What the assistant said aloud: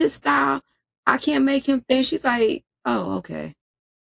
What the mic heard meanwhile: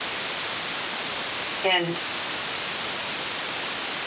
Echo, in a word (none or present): none